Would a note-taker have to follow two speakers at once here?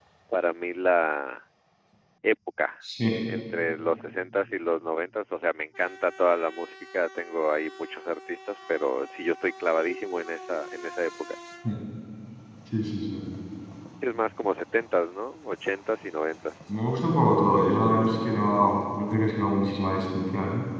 No

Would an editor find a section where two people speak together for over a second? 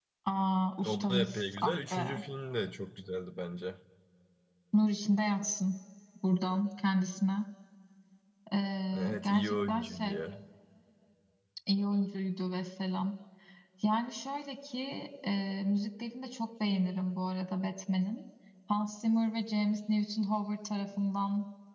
Yes, from 0.8 s

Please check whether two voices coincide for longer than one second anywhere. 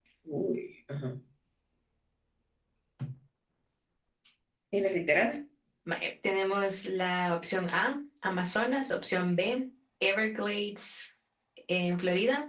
No

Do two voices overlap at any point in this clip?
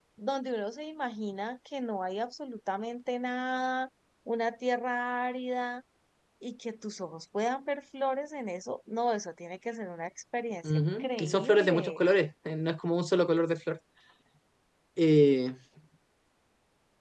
Yes, from 10.6 s

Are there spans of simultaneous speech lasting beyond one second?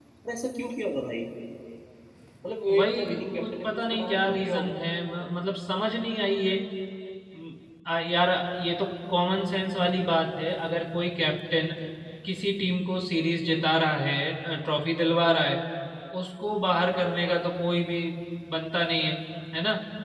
Yes, from 2.8 s

